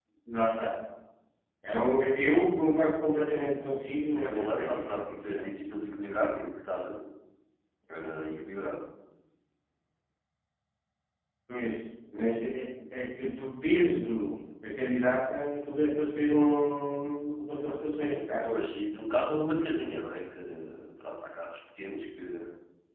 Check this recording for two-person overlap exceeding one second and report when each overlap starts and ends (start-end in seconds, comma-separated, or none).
4.2-5.4